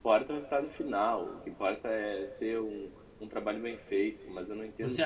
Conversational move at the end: taking over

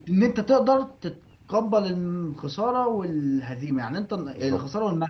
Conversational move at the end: listening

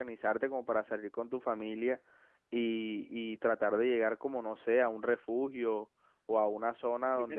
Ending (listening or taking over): taking over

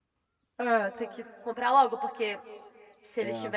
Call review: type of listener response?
listening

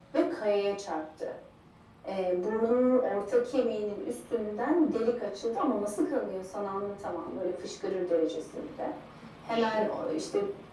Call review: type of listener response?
listening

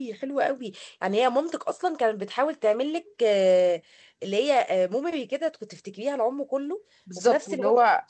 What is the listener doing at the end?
taking over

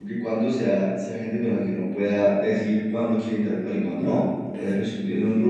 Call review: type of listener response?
listening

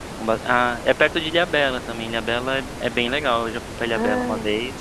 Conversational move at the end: taking over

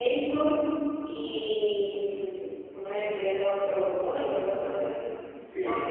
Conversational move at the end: listening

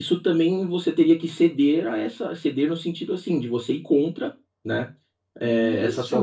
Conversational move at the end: listening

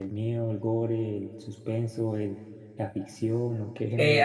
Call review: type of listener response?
taking over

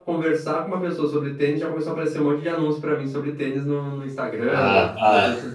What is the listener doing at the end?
taking over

